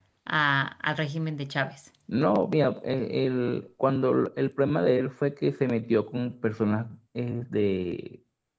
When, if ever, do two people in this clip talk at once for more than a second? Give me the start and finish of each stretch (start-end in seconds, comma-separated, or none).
none